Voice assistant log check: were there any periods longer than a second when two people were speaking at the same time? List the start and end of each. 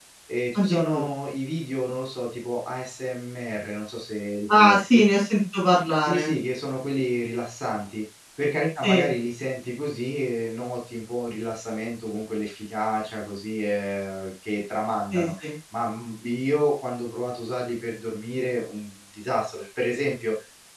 none

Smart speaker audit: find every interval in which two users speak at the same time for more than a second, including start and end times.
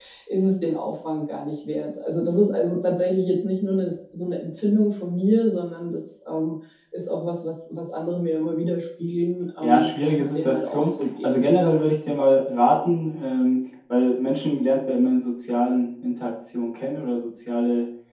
9.6-11.5

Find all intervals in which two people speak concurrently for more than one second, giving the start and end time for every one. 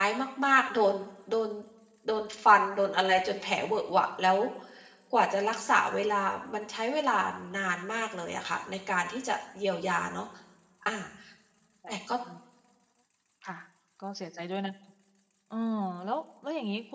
none

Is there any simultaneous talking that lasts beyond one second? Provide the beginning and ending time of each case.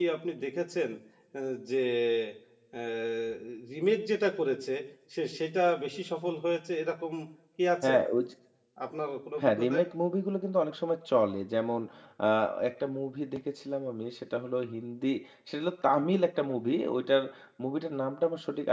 none

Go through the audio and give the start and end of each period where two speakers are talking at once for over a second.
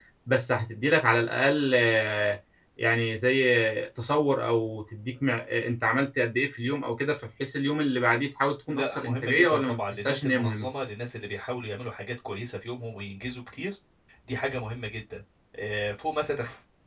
8.7-10.7

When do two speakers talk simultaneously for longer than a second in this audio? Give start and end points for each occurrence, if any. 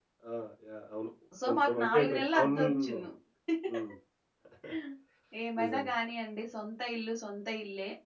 1.5-3.0

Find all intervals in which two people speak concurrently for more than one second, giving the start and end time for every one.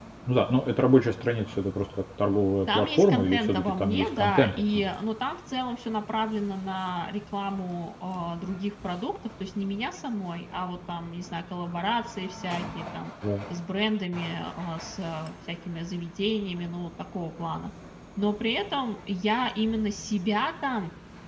2.7-4.9

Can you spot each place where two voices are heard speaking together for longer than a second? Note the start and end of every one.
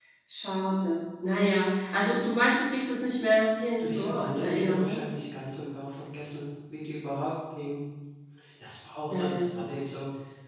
3.8-5.0

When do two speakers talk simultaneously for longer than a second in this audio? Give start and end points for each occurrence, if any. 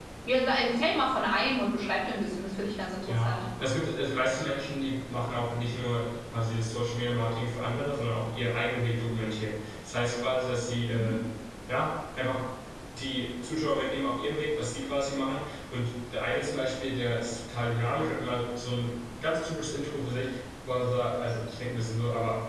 none

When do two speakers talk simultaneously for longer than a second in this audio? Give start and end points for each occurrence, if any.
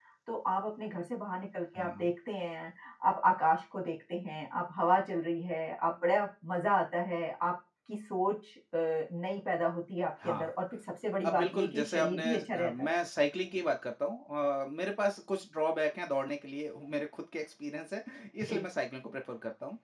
11.3-12.9

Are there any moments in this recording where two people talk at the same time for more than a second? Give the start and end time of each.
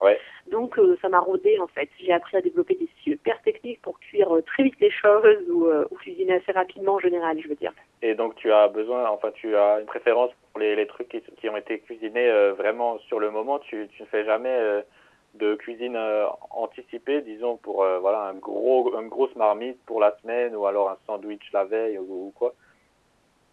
none

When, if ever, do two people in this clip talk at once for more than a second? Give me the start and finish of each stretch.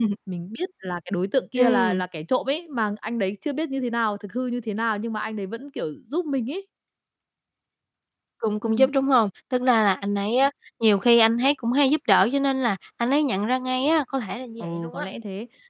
none

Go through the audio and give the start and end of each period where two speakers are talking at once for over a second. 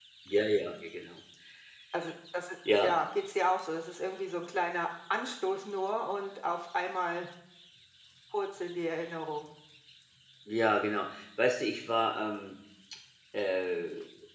none

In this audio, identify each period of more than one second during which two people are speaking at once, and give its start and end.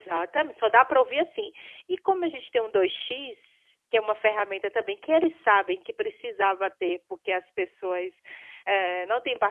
none

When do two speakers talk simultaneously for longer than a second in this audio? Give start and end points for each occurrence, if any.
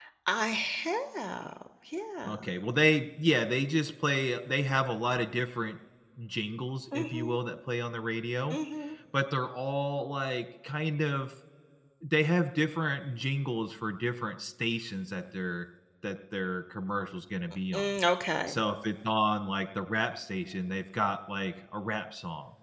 none

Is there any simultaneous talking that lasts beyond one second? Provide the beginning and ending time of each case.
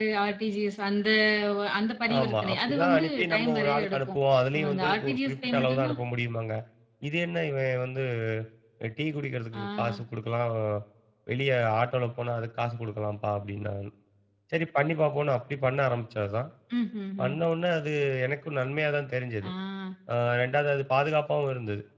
2.2-5.9

